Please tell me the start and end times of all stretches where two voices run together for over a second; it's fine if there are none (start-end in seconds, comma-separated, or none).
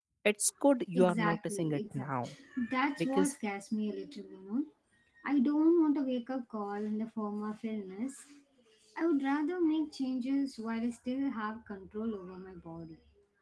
0.9-2.3